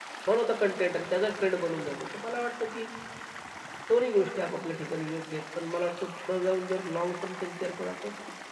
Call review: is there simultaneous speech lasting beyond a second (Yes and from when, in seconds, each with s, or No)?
No